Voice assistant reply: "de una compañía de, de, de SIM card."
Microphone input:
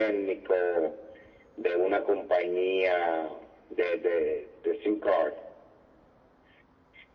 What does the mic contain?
echo only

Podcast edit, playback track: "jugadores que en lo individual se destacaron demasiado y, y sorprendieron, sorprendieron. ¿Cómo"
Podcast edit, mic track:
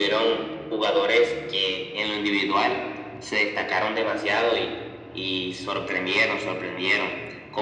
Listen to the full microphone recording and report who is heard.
echo only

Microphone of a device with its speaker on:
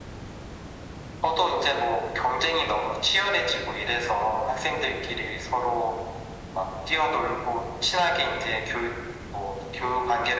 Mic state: echo only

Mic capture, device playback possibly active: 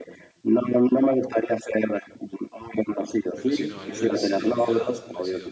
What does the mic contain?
both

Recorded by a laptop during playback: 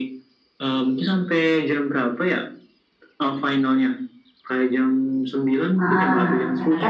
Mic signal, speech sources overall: both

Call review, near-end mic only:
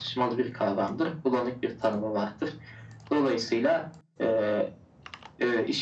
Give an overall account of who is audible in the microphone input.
echo only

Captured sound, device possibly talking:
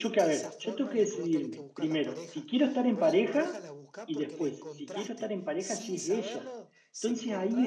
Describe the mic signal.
both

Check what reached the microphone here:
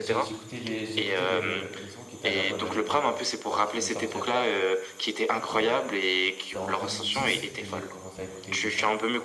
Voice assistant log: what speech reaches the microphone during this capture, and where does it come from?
both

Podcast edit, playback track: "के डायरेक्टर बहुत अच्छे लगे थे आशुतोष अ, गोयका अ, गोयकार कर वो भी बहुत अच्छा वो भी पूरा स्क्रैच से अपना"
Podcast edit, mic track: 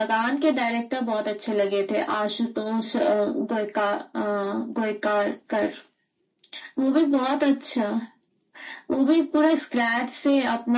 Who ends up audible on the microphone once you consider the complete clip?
echo only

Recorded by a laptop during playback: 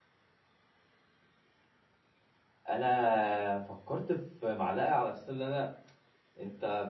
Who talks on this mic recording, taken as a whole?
user only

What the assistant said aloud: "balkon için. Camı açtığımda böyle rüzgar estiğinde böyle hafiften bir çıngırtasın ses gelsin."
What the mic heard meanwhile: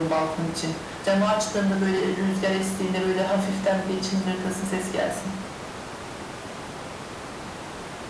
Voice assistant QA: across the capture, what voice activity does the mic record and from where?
echo only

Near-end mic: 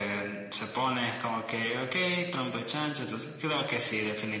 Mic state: echo only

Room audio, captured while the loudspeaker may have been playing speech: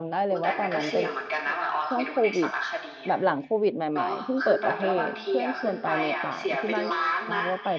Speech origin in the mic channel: both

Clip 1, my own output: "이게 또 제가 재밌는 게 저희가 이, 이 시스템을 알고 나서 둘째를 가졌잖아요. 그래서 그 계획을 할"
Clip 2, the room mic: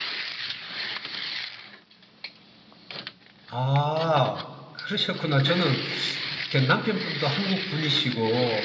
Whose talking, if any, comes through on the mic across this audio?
user only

